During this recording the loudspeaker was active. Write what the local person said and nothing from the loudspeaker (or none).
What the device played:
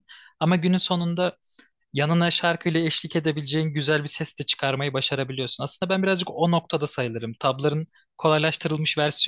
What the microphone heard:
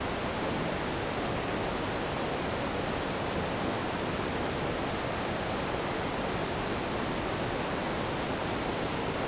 none